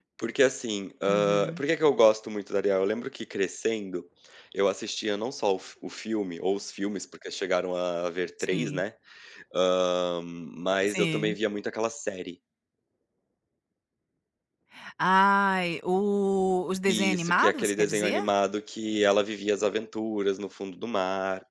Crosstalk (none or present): present